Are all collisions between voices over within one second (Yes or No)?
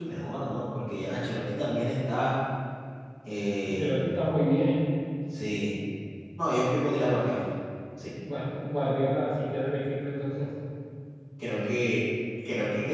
Yes